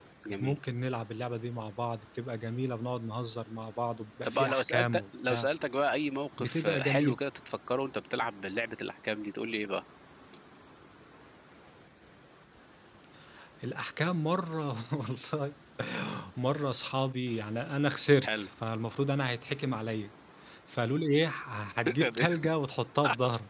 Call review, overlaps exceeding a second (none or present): present